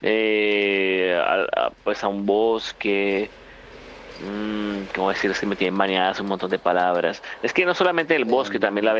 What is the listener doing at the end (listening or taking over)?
listening